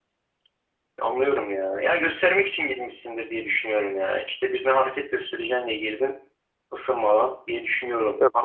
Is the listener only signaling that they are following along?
No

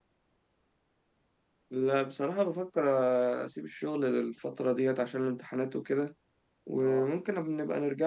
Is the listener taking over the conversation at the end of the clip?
No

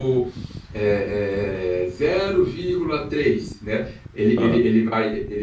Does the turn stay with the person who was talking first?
Yes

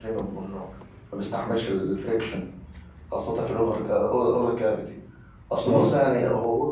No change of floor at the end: Yes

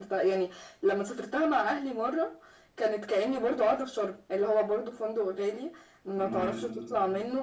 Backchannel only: Yes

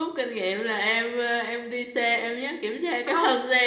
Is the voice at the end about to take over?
No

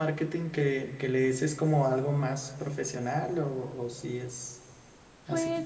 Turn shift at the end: Yes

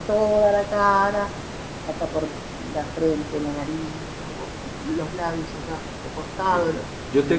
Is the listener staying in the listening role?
No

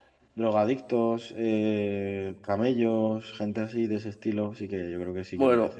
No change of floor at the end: No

